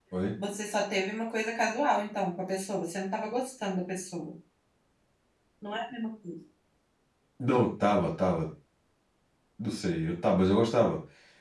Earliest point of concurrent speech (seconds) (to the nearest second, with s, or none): none